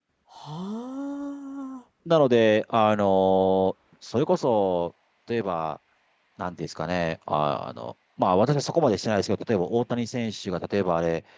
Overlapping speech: No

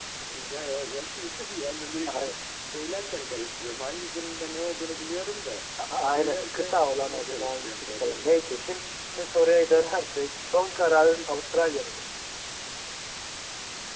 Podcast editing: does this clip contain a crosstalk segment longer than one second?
Yes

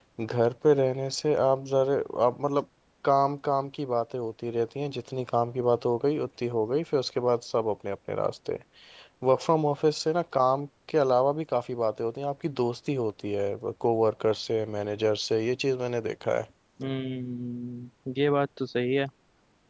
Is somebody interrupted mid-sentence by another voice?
No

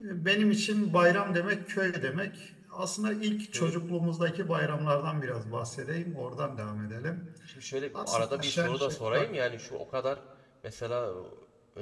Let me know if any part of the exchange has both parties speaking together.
Yes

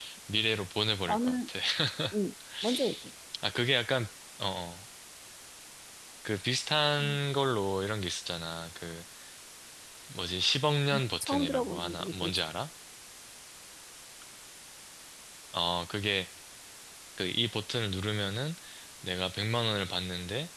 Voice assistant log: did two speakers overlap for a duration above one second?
Yes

